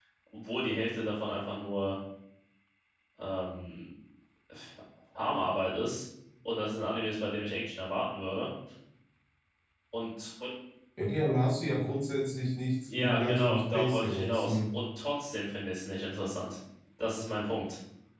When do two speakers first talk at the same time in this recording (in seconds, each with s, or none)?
12.9 s